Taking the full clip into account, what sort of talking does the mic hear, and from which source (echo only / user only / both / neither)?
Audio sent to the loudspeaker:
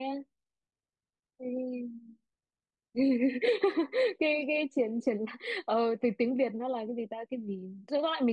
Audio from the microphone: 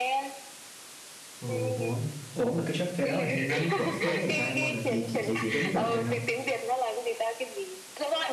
both